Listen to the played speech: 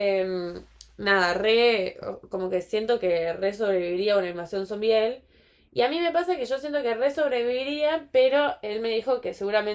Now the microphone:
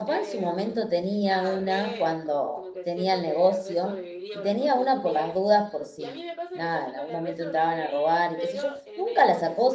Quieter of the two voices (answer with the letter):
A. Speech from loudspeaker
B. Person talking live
A